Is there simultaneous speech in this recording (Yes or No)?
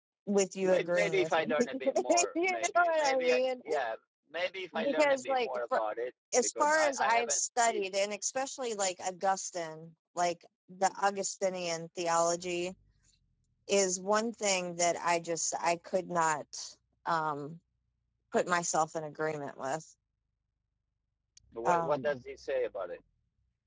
Yes